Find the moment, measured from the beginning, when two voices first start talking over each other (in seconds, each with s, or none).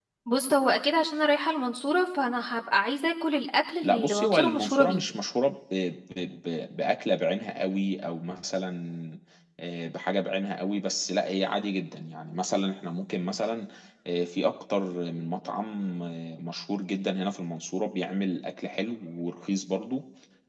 3.8 s